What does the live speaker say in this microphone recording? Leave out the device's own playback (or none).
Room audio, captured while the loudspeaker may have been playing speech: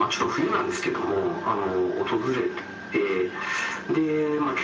none